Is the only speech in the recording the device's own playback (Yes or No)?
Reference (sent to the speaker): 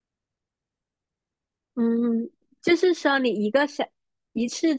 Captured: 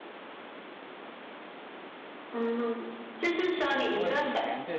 No